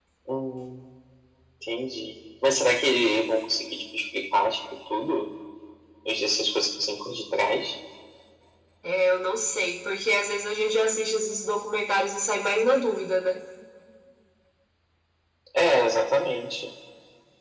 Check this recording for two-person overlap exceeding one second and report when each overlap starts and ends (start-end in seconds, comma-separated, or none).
none